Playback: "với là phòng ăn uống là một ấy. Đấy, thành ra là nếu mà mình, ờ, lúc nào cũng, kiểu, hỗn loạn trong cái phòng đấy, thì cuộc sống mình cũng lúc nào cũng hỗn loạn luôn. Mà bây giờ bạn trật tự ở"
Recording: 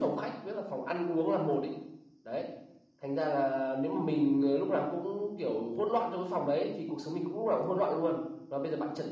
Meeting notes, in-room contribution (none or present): none